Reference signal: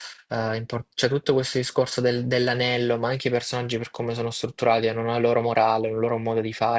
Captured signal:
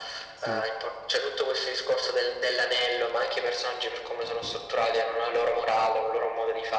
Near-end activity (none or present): present